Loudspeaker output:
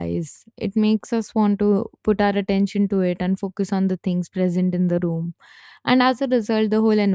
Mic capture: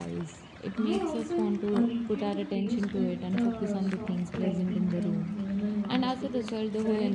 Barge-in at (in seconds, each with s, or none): 0.7 s